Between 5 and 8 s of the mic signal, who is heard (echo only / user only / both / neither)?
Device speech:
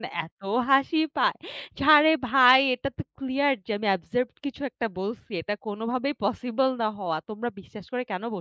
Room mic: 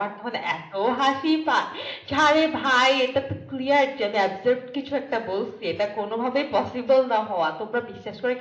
echo only